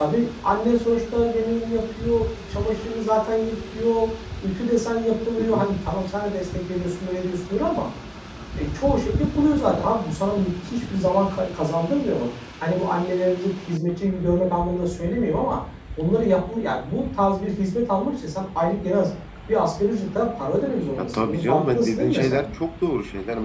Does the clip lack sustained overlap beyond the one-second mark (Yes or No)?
No